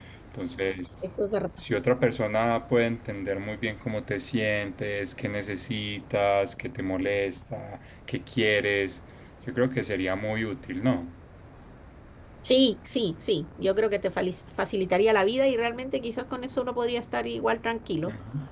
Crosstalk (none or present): none